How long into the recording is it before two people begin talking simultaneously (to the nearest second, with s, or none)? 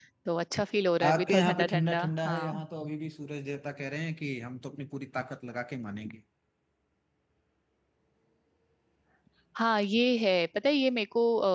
1 s